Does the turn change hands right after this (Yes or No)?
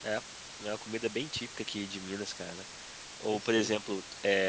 No